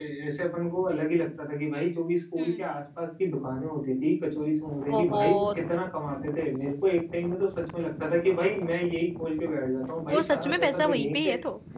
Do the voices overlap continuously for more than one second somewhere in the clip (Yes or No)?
Yes